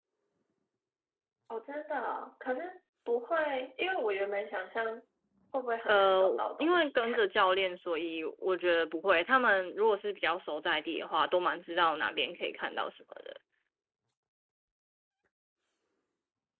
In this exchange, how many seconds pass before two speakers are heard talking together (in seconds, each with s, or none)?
5.9 s